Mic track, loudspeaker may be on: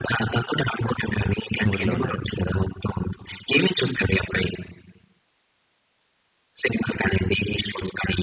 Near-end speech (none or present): present